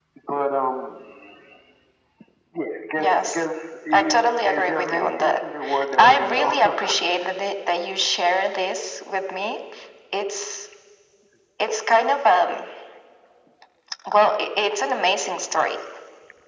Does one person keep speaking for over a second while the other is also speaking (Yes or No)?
Yes